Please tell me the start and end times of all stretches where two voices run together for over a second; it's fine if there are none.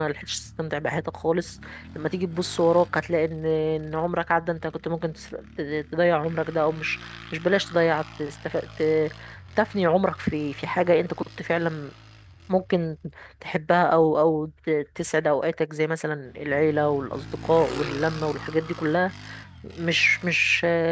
none

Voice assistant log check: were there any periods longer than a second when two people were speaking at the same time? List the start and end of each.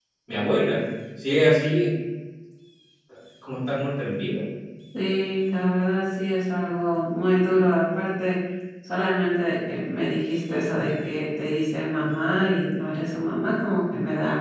none

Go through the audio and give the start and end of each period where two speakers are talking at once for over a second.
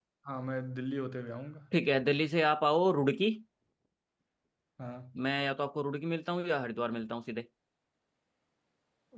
none

